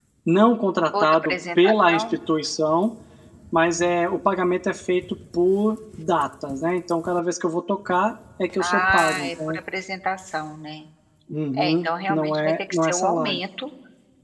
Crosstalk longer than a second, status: present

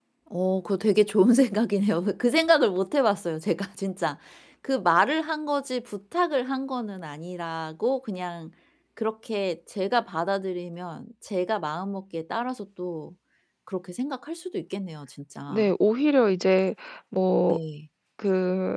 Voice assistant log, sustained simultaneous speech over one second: none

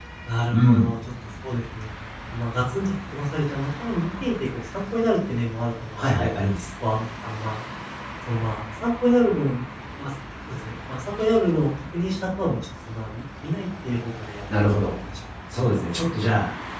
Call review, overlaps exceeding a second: none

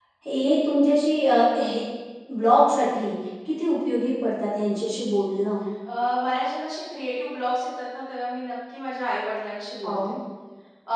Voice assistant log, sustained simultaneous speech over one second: none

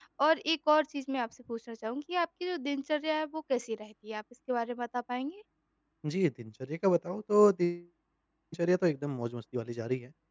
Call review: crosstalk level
none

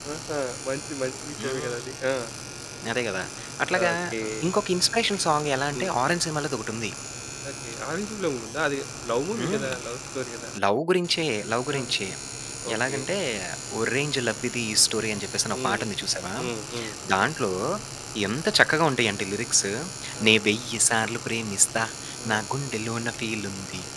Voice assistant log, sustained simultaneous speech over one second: none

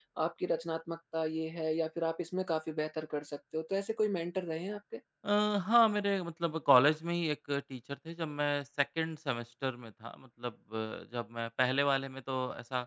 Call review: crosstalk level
none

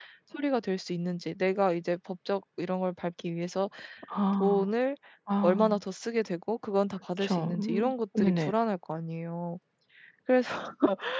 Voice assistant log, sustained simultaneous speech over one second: present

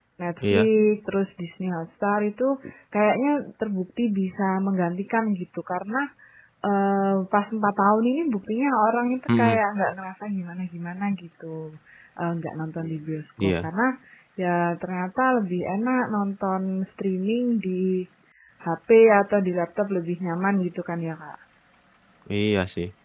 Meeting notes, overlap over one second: none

